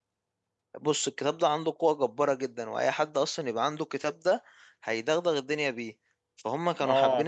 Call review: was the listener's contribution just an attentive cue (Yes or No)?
No